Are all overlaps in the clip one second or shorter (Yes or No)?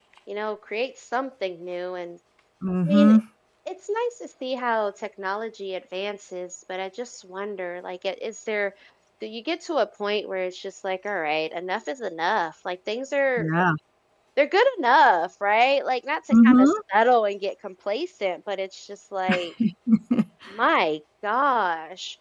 Yes